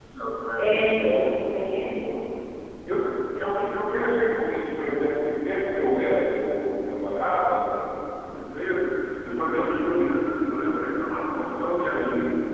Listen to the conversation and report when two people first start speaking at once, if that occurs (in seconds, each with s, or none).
0.6 s